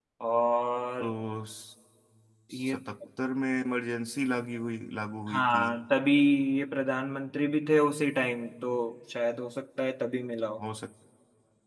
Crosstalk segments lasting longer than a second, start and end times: none

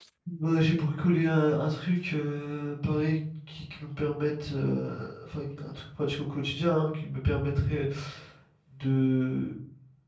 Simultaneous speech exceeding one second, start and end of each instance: none

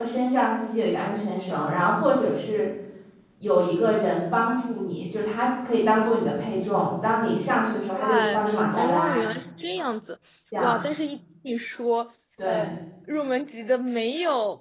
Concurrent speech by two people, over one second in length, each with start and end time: 8.0-9.2

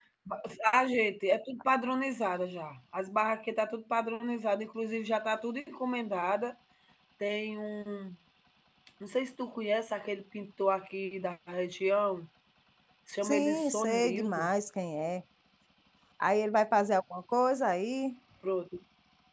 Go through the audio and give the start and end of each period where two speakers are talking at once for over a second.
13.2-14.5

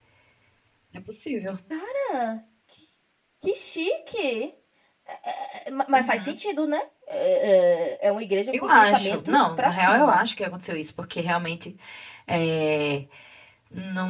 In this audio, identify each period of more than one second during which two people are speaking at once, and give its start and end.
8.6-10.2

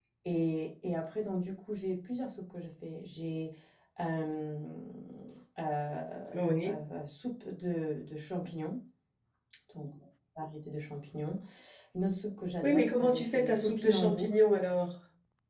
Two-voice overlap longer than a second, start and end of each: 12.6-14.4

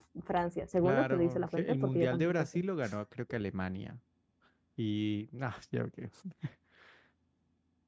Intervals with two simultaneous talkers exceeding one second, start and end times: 0.8-2.6

